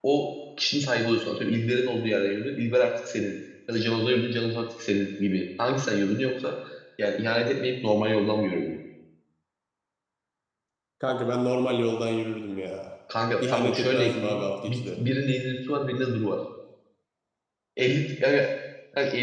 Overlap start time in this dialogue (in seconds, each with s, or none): 13.5 s